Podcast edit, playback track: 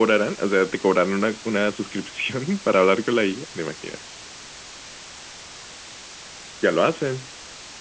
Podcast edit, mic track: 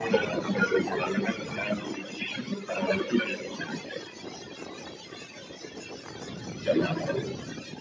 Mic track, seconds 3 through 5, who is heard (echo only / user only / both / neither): echo only